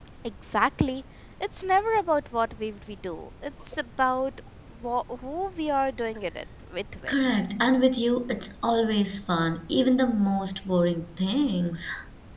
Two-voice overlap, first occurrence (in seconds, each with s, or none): none